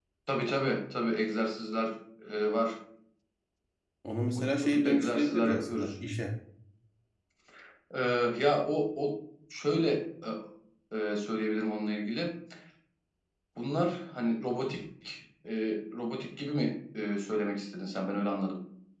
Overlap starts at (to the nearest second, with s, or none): 4 s